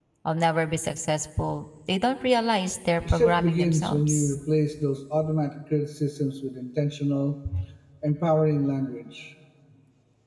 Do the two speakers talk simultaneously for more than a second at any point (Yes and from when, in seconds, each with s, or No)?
Yes, from 3.0 s